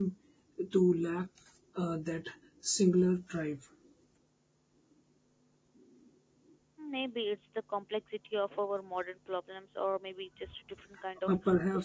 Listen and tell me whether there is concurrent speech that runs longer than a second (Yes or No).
No